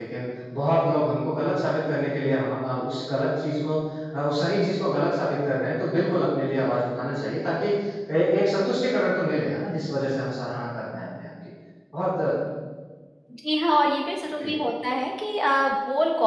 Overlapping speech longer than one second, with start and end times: none

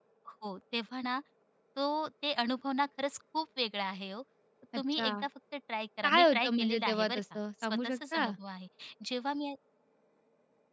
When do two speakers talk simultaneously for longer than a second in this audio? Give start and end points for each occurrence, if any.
6.0-8.3

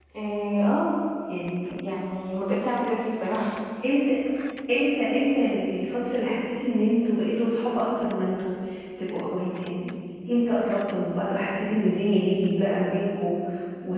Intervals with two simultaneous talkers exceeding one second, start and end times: none

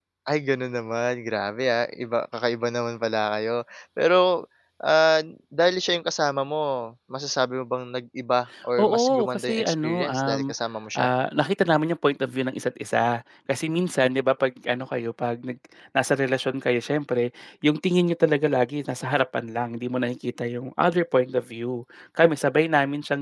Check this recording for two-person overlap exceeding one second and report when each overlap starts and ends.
8.8-10.5

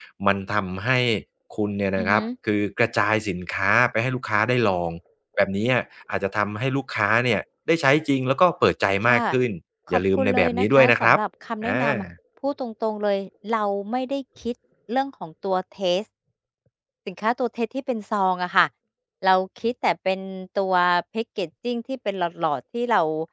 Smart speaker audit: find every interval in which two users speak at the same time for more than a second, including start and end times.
9.9-11.2

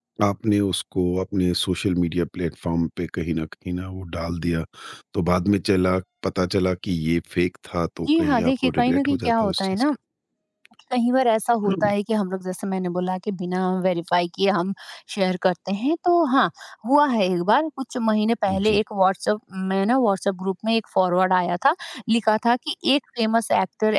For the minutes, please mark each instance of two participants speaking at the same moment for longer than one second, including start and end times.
8.2-9.9

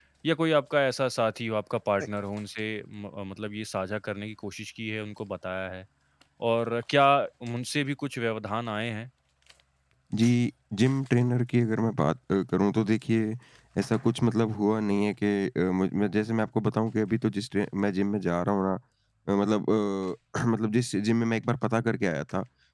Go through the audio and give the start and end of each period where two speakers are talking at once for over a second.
none

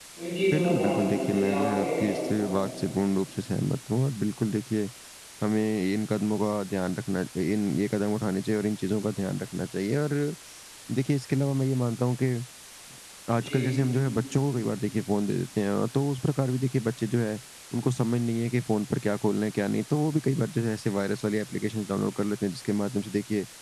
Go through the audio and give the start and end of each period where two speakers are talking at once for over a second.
0.5-2.7

